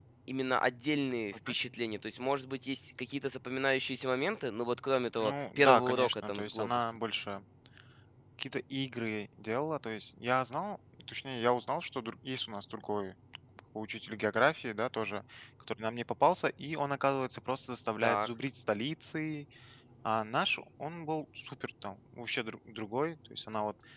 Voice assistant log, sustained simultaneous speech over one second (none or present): present